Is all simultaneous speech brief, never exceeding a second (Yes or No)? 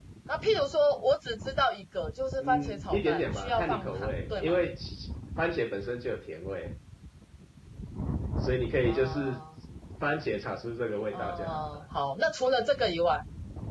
No